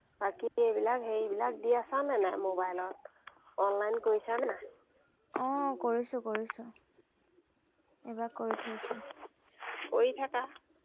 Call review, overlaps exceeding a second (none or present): none